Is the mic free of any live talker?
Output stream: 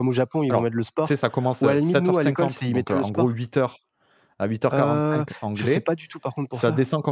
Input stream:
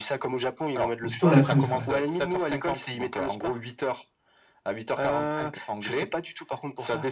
No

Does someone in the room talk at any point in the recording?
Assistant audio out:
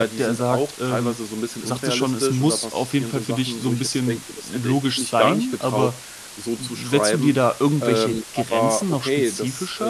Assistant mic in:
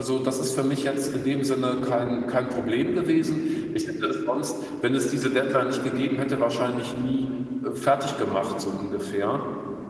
Yes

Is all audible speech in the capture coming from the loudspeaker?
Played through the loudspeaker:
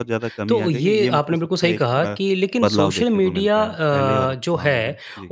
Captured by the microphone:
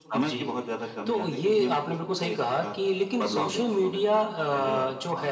Yes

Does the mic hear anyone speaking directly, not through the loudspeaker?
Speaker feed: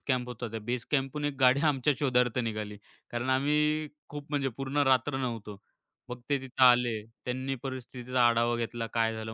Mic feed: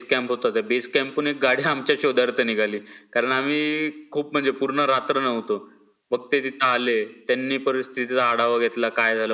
No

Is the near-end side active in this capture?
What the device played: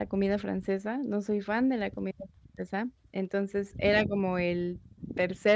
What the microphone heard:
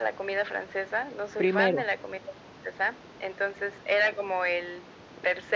Yes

